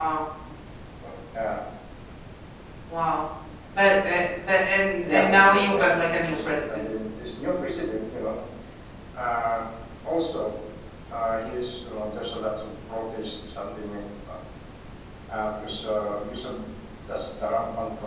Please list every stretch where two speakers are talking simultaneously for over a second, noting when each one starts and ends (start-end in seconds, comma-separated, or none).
5.1-6.6